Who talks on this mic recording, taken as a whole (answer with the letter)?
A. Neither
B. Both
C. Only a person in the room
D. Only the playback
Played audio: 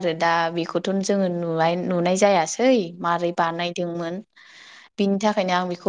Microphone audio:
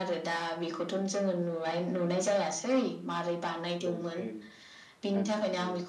B